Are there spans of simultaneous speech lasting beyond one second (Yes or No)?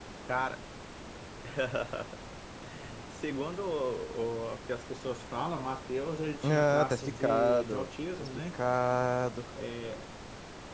Yes